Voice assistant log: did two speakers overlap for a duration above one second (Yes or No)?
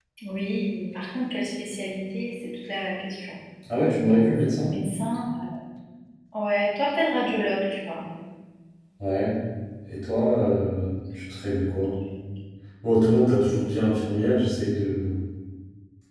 No